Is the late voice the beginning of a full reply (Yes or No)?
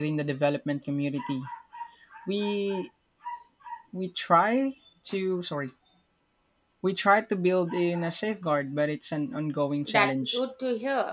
Yes